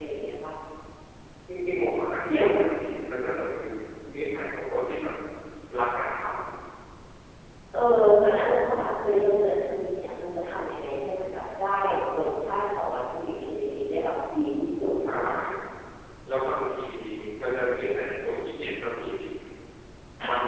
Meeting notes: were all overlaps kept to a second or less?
Yes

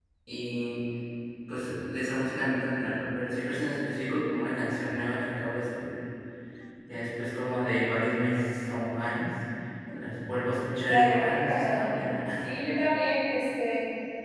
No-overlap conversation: No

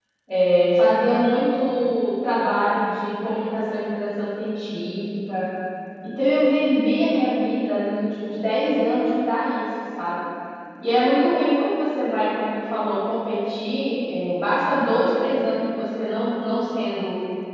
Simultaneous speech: No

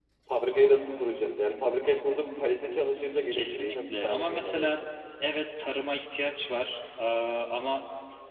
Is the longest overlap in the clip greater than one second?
Yes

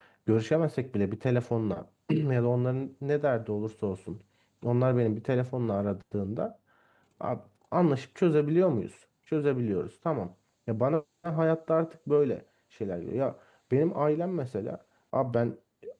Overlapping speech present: No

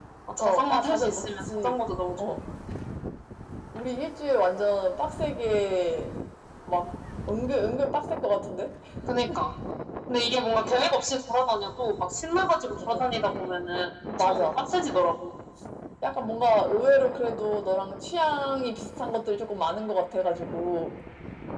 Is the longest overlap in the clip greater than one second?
Yes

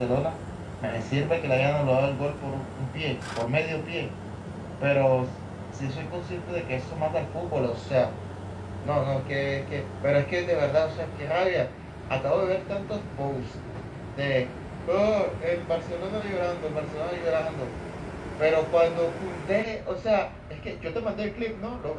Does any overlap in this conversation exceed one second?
No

